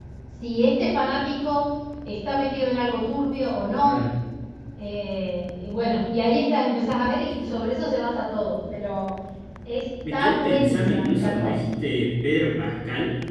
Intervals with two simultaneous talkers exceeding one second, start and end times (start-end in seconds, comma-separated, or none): 10.1-11.6